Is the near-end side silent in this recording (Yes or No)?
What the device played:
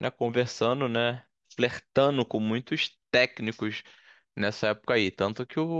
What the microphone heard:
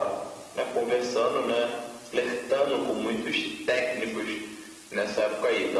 Yes